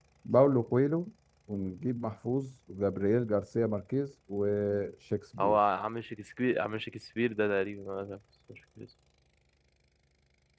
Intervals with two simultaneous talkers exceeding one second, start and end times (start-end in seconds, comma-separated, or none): none